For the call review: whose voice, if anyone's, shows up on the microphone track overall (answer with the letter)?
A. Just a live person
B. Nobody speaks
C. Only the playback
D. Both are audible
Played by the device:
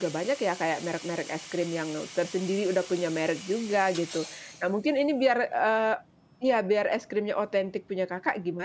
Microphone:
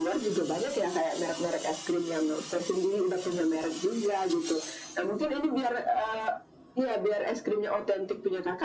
C